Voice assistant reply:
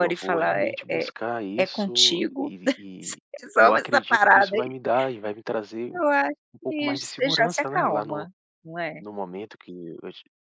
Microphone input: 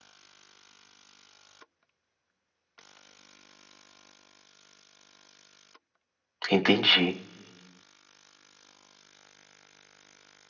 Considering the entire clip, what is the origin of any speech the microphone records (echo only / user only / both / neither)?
user only